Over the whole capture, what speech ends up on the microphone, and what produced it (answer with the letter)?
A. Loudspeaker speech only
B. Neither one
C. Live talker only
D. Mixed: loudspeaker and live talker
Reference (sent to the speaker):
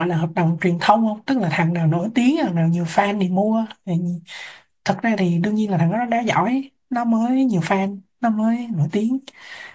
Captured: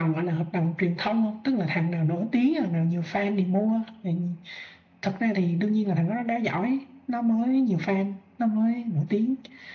A